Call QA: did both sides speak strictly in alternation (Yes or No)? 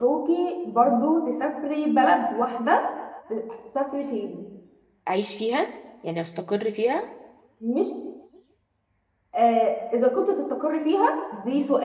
Yes